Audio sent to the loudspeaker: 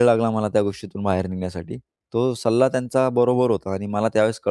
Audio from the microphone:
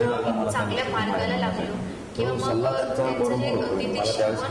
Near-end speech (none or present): present